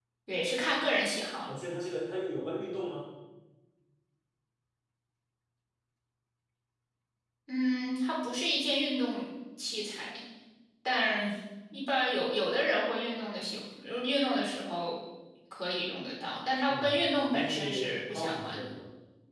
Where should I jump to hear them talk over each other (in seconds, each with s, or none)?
16.7 s